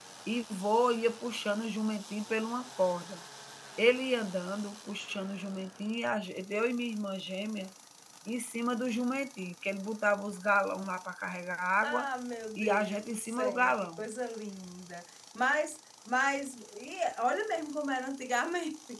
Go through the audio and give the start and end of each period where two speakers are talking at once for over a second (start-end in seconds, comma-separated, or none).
12.6-14.0